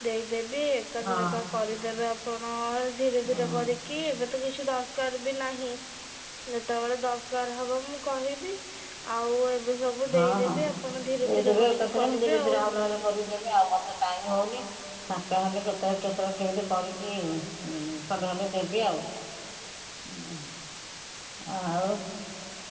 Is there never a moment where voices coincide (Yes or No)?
No